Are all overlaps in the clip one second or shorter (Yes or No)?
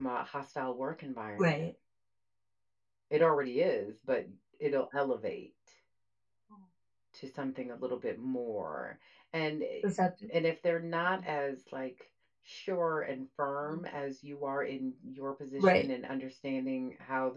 Yes